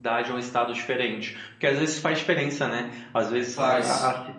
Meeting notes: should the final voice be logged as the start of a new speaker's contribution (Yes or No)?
No